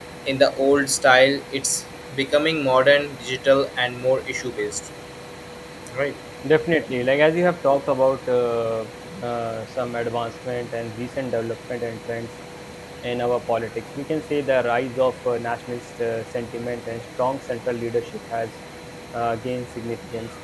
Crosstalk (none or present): none